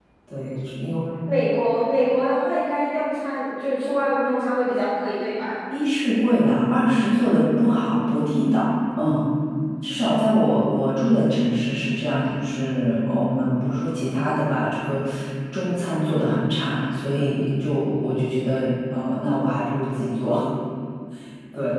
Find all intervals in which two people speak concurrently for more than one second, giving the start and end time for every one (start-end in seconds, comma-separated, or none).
none